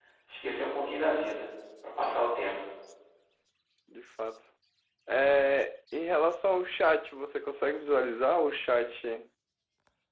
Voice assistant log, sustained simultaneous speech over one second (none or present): none